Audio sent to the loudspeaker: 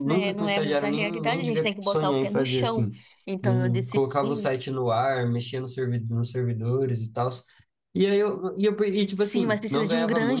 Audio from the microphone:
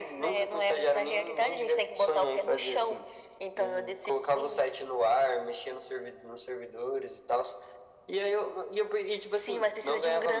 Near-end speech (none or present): none